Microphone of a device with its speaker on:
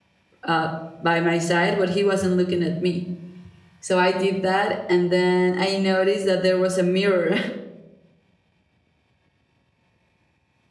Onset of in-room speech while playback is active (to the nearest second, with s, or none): 0 s